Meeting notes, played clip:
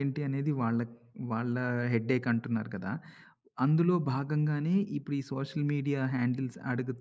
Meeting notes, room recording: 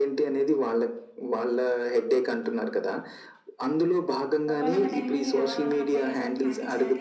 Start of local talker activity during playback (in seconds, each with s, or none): 4.5 s